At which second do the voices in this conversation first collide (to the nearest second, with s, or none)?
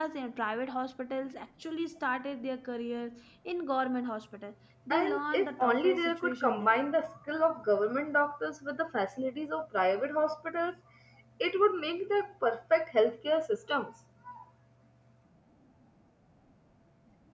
5 s